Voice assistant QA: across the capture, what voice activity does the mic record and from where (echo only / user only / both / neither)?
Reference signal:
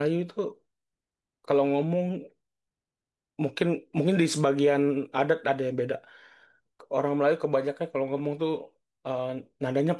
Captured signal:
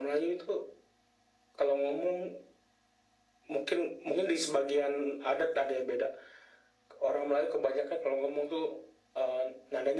echo only